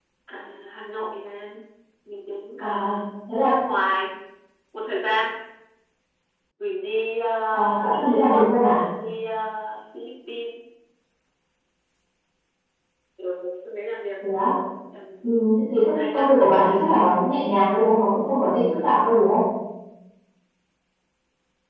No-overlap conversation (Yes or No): No